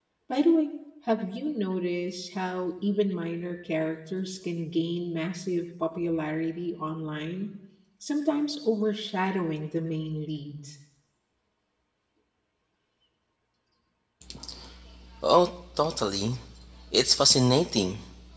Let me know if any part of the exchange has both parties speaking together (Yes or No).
No